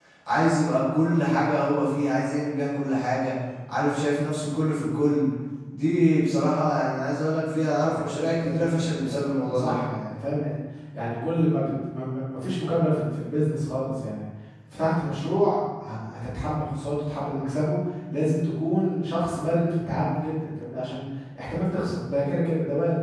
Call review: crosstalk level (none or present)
present